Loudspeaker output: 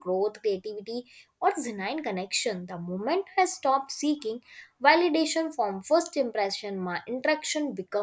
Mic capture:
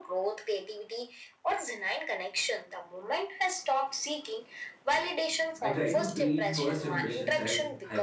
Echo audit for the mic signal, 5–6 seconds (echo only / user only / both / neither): both